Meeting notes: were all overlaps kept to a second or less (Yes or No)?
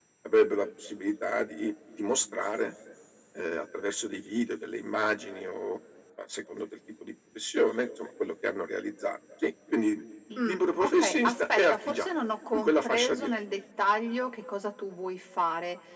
No